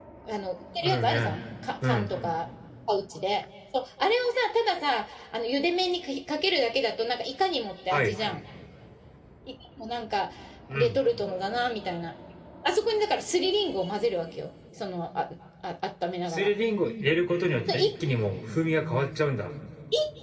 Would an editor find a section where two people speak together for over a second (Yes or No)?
No